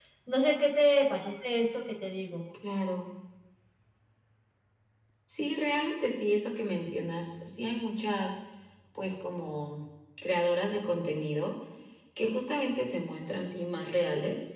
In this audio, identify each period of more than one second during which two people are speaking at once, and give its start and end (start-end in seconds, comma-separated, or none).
none